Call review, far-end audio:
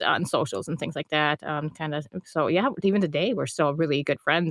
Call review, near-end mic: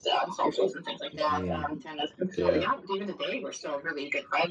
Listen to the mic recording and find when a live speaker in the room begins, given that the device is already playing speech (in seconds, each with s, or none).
1.1 s